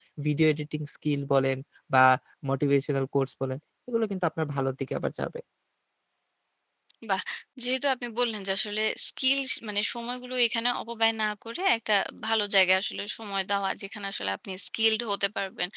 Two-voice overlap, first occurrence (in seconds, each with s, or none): none